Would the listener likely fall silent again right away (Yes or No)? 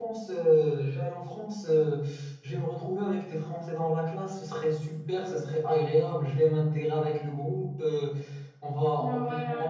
Yes